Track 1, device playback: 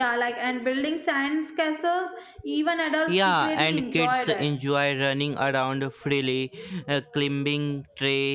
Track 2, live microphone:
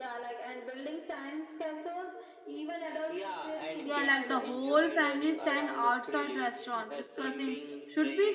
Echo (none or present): present